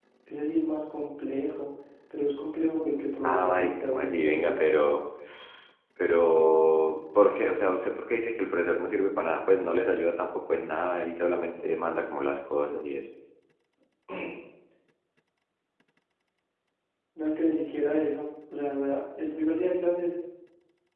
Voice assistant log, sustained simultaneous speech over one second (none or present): present